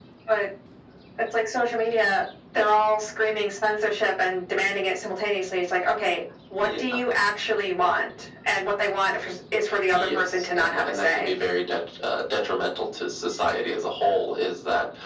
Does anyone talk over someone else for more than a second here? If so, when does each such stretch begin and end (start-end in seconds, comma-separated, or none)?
9.9-11.3